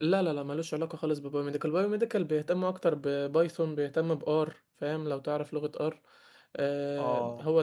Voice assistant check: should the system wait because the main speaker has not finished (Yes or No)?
No